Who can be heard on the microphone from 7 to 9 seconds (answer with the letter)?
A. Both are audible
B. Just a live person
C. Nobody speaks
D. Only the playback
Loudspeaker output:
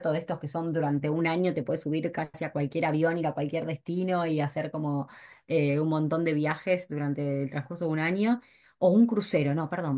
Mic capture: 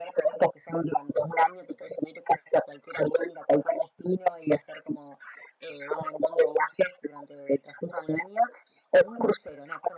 D